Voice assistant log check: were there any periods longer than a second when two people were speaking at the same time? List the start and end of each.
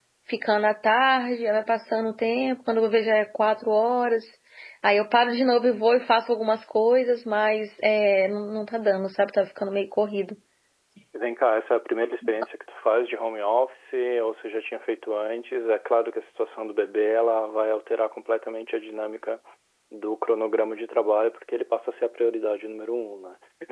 none

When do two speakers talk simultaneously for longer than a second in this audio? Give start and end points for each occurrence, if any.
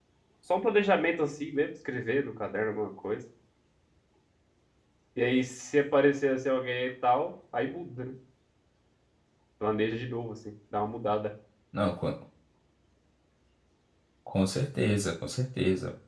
none

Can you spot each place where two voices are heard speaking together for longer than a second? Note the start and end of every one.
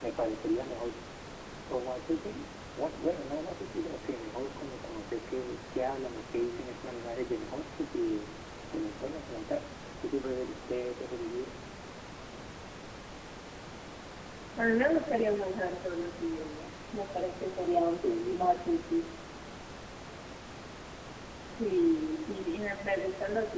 none

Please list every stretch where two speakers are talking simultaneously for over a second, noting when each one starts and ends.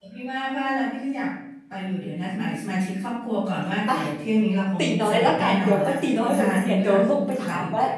4.8-7.4

